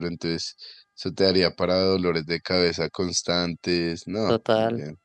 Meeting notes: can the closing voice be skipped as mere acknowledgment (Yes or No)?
No